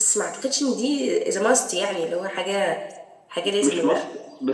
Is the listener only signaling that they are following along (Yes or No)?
No